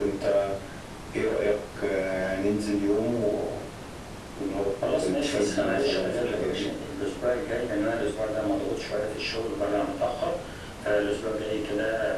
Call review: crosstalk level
present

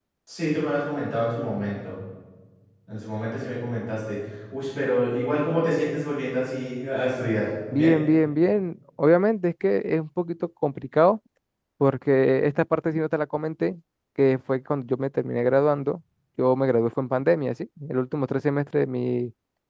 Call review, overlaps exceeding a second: none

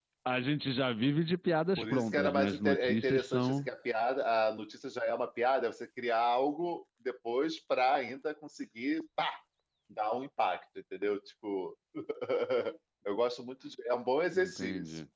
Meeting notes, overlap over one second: present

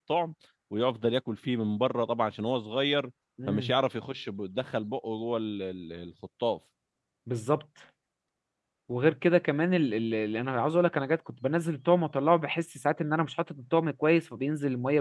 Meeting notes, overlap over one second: none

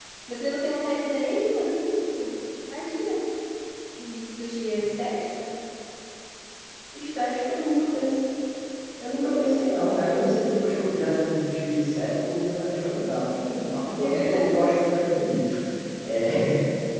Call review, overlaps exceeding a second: none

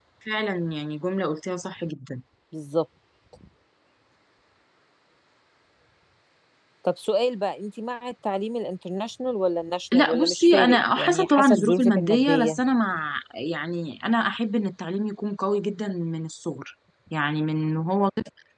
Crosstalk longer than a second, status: present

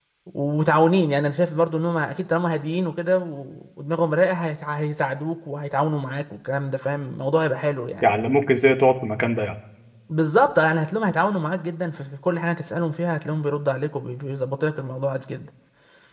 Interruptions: none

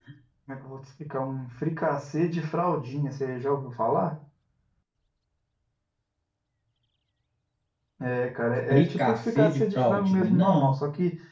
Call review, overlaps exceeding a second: present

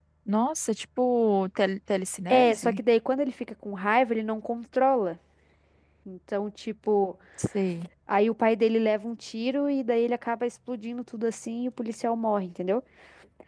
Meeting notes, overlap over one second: none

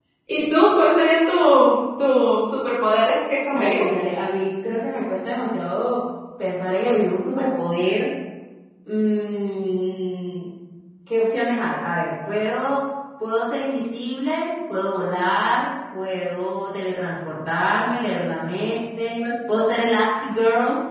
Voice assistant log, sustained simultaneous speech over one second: none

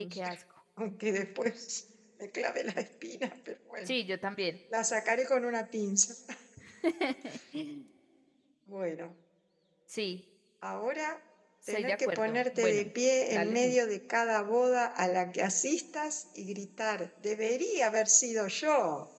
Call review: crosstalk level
present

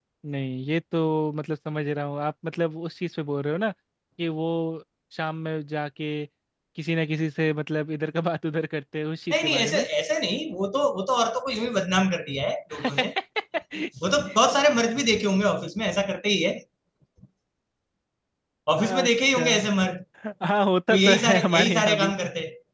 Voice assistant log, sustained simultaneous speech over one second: present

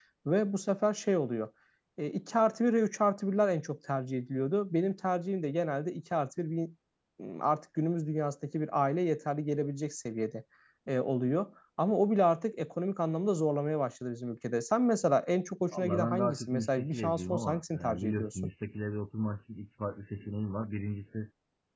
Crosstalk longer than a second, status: present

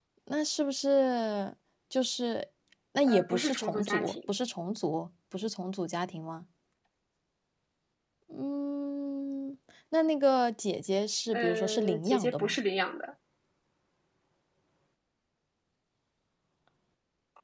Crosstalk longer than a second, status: present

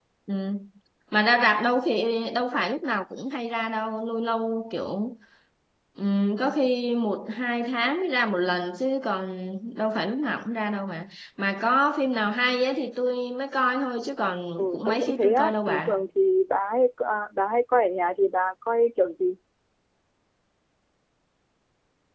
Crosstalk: present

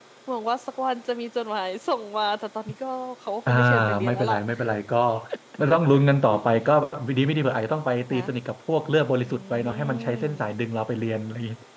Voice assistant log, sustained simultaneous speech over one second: present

